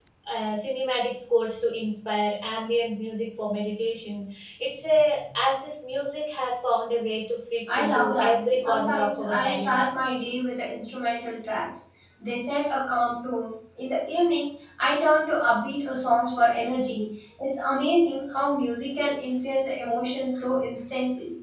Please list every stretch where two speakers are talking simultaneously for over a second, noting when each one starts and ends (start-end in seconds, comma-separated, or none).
7.8-9.9